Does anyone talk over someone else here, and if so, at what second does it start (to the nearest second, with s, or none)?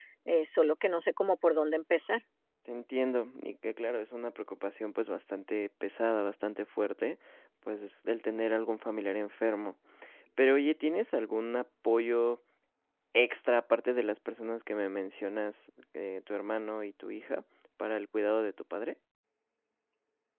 none